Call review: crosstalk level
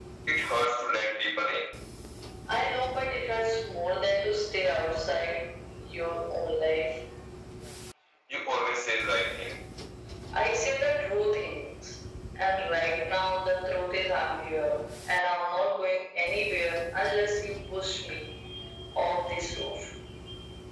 none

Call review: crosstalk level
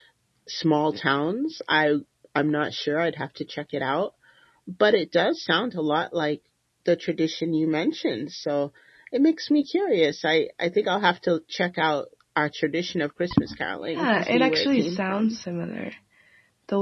present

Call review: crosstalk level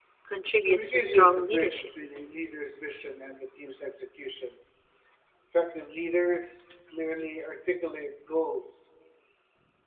present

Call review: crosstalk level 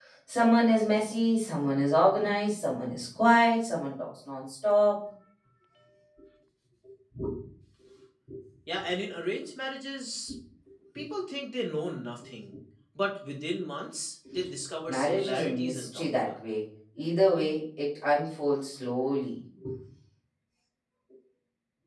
present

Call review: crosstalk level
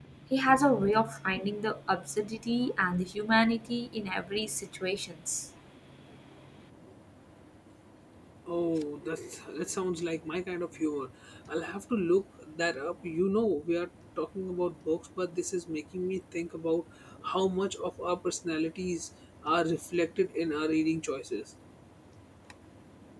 none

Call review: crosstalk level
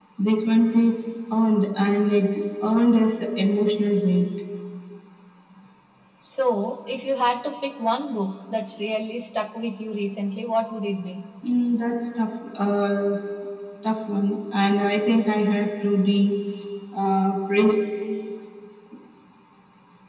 none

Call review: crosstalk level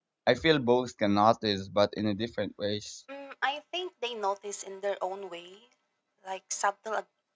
none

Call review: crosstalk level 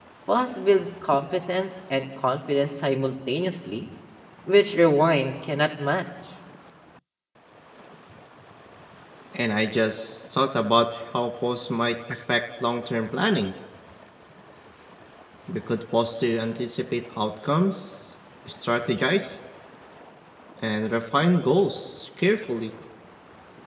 none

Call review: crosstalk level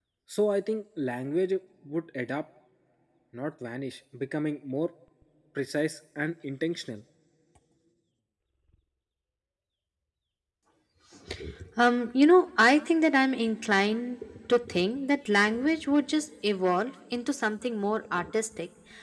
none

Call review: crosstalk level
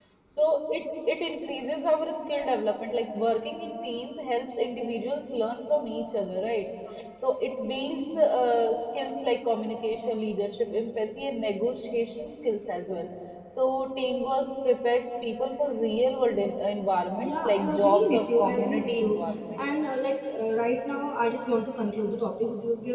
present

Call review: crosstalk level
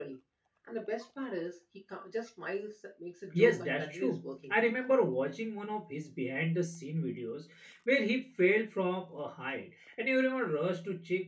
present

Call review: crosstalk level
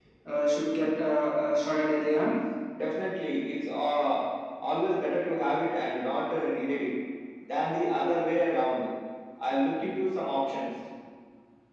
none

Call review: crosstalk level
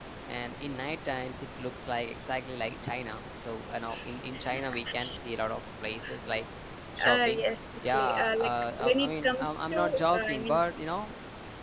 present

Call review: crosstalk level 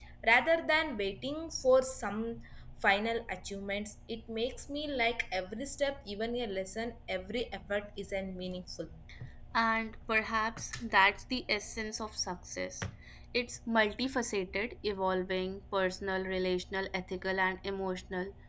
none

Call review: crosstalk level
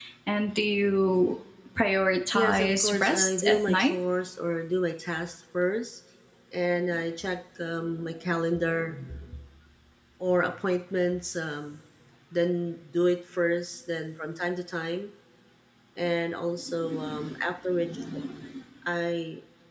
present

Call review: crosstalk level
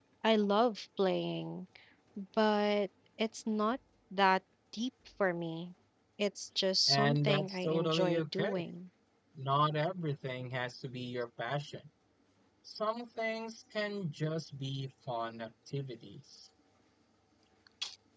present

